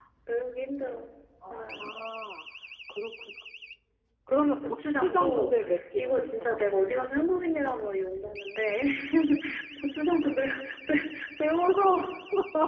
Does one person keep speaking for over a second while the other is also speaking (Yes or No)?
Yes